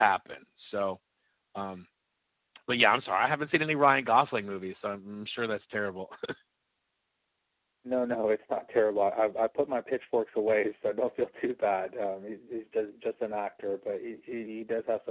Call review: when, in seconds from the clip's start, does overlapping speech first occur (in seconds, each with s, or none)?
none